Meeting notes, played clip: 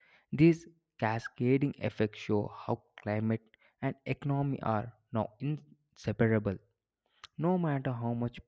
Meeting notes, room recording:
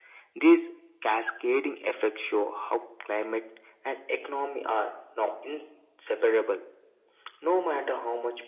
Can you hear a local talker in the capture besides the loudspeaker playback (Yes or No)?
No